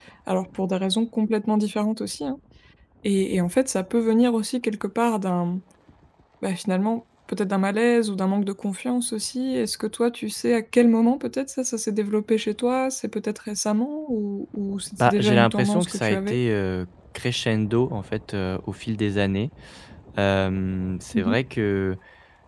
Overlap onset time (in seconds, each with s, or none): 15.0 s